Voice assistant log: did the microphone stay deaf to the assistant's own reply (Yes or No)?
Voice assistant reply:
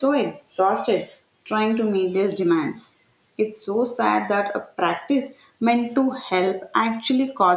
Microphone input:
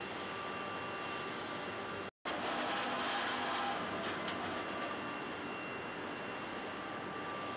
Yes